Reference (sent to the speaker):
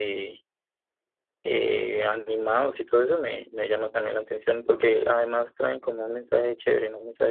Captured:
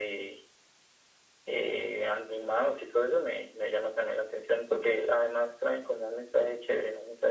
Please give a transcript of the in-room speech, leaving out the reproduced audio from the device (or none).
none